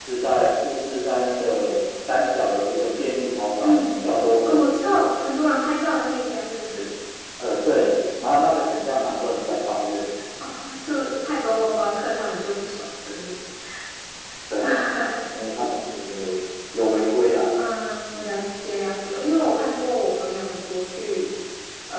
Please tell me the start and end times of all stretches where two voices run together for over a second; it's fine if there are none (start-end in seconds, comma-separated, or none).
none